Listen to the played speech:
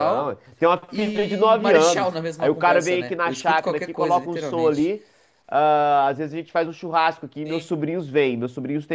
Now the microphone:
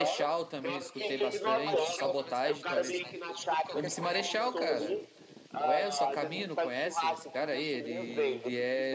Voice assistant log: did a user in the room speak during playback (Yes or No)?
Yes